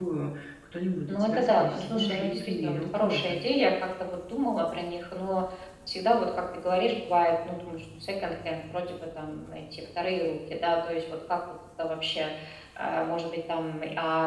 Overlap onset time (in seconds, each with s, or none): 1.1 s